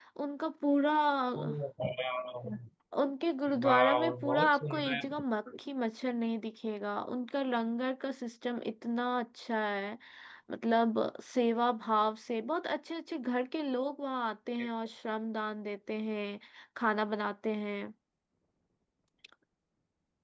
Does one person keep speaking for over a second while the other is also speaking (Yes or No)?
Yes